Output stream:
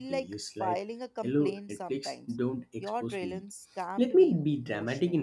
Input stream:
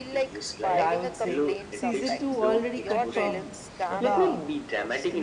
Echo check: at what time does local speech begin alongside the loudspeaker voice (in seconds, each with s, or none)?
0.7 s